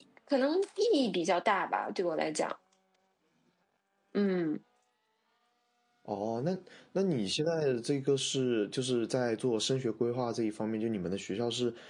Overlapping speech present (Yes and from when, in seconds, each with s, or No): No